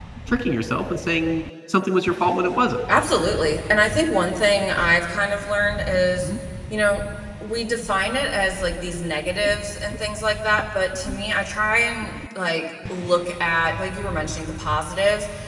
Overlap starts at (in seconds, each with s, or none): none